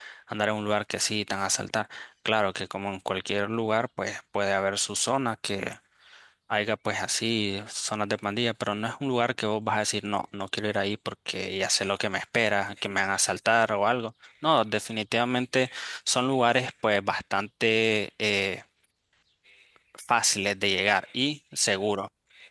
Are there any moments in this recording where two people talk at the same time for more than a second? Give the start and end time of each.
none

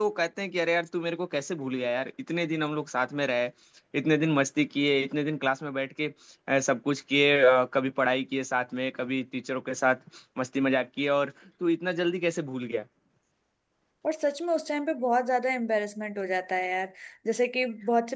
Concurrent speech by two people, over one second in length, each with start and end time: none

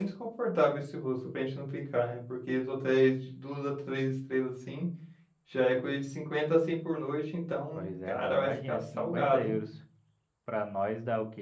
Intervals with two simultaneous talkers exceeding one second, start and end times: 7.8-9.6

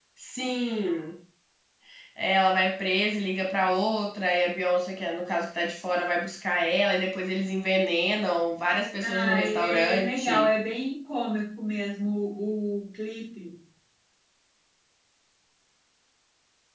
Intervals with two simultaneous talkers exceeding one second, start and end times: 9.0-10.5

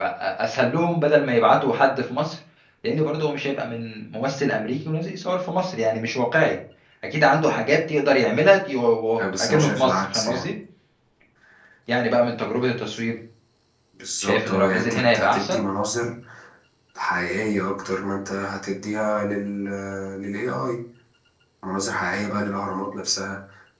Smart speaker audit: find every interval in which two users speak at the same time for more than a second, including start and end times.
9.2-10.5, 14.2-15.6

